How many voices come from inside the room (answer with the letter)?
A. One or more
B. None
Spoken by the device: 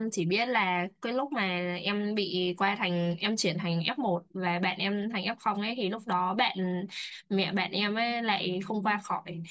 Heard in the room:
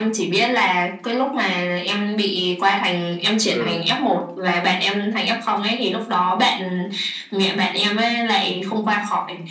A